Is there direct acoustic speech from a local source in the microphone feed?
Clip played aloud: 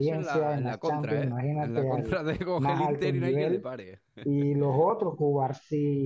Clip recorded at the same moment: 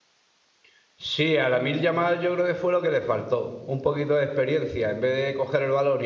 Yes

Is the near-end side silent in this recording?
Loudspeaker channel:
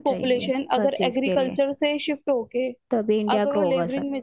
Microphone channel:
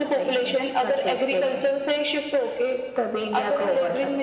Yes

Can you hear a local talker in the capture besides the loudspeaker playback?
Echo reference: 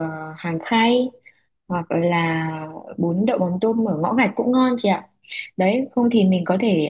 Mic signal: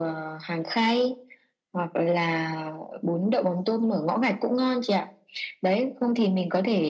No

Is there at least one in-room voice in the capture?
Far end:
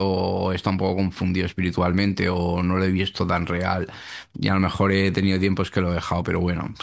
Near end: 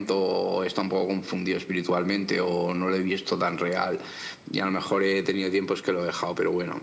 No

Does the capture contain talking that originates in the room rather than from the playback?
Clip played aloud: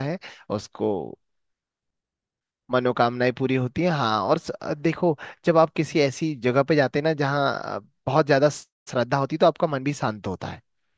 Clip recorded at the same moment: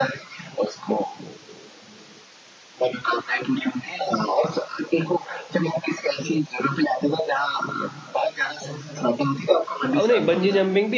Yes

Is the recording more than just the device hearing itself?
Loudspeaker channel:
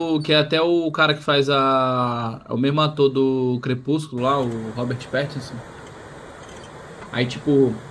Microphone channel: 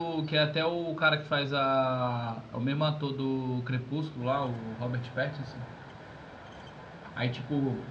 No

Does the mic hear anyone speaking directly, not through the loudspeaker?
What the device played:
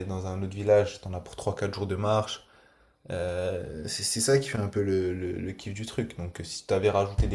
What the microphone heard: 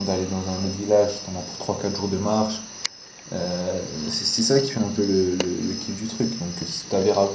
No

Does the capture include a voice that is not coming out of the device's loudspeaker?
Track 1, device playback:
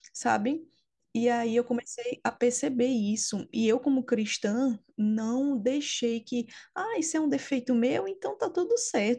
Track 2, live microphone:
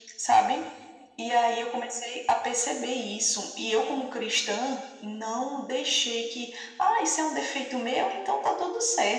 No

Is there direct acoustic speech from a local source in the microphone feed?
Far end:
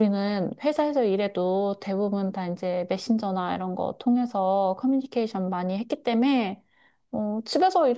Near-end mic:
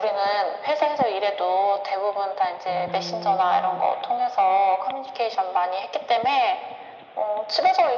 Yes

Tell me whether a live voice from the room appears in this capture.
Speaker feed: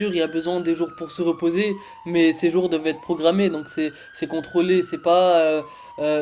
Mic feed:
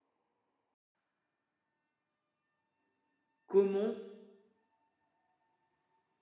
Yes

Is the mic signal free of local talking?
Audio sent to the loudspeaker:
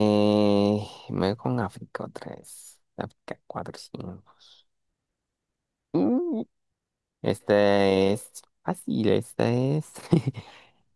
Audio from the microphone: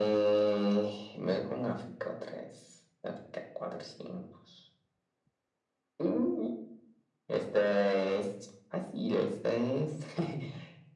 Yes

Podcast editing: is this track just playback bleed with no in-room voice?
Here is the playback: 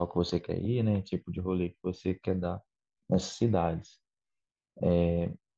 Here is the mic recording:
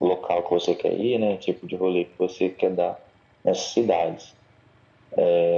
Yes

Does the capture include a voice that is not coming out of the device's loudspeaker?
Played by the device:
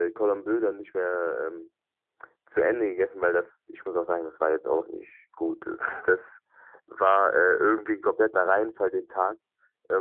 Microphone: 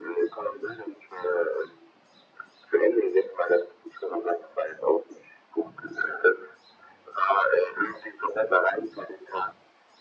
No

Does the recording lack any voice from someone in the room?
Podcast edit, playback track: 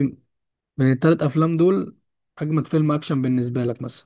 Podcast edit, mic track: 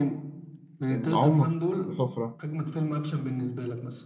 No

